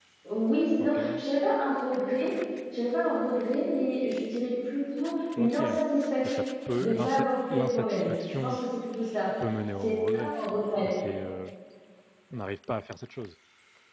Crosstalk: present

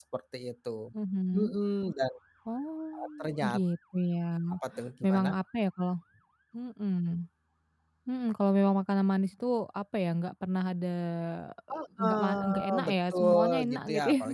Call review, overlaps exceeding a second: present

